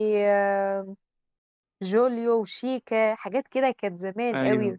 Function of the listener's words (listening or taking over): listening